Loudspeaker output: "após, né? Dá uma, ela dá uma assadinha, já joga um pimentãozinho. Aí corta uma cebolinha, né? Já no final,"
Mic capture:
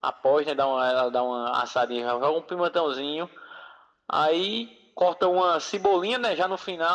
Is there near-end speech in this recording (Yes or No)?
No